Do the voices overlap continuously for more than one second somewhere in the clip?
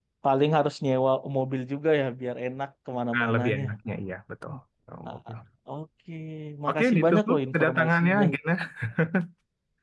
Yes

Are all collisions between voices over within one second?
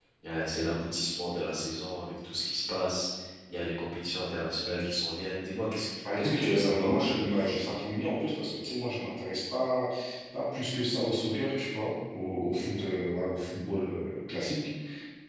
No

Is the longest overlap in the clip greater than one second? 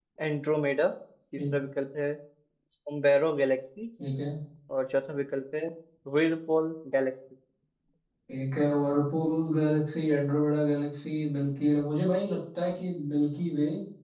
No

